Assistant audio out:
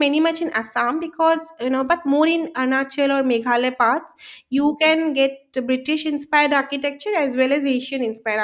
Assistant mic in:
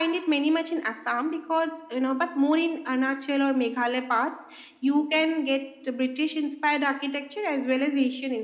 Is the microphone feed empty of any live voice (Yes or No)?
Yes